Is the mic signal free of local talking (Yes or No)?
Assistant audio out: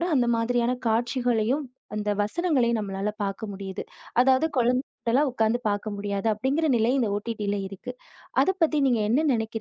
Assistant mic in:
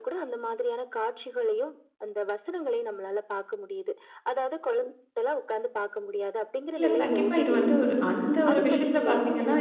No